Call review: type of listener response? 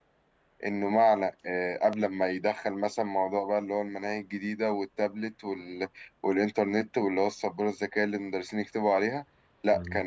listening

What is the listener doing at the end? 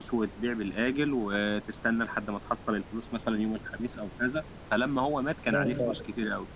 listening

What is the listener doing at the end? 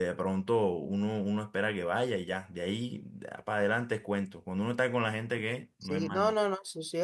taking over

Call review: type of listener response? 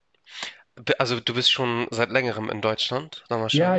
taking over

